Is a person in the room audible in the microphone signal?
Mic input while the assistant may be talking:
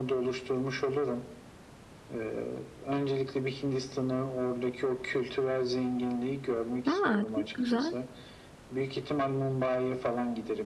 Yes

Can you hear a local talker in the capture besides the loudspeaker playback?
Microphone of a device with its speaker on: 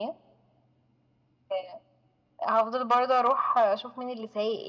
No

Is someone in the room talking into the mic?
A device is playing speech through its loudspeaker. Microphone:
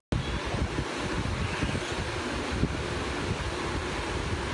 No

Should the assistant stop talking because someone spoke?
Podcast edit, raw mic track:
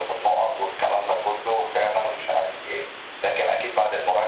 No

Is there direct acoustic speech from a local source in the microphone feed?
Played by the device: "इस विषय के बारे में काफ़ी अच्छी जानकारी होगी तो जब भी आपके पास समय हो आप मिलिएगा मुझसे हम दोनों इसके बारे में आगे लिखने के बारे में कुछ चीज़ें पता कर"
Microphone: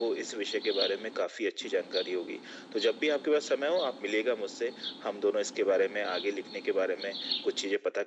No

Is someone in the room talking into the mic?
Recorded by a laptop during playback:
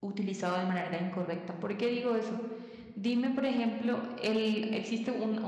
Yes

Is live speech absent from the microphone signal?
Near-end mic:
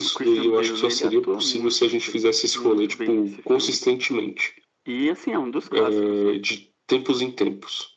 Yes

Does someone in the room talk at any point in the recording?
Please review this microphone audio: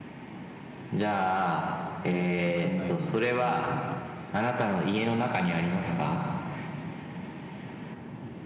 Yes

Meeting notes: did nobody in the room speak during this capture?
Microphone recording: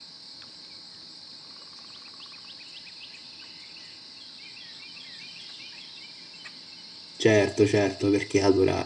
No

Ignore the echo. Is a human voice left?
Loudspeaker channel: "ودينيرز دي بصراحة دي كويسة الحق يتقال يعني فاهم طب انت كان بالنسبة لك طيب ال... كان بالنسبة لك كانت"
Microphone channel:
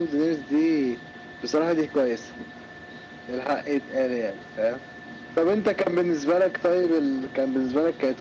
No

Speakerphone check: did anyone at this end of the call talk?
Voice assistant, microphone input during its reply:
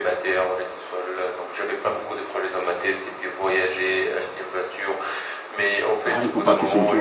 Yes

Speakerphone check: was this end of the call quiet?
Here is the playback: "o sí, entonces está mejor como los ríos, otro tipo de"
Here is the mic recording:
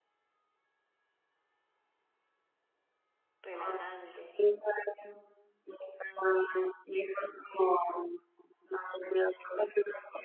No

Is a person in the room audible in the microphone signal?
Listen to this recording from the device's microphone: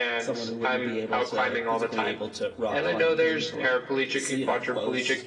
No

